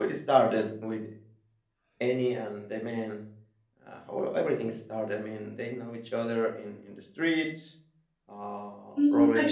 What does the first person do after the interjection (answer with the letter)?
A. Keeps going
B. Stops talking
B